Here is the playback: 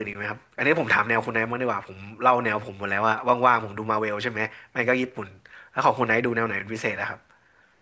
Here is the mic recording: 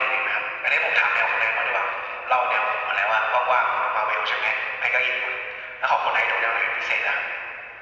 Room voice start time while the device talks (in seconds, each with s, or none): none